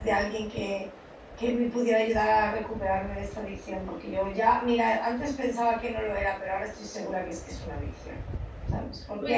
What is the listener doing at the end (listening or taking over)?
listening